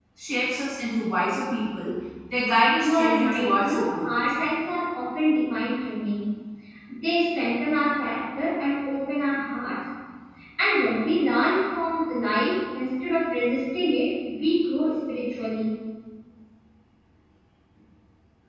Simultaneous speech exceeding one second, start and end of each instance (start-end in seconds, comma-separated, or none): 2.8-4.1